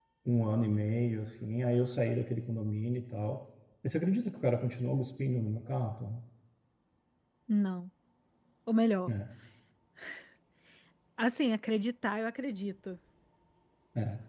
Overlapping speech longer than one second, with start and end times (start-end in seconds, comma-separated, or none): none